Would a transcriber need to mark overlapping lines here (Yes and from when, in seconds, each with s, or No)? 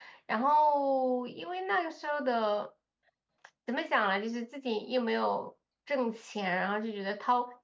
No